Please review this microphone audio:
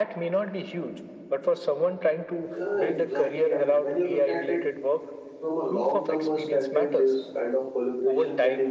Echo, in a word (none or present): present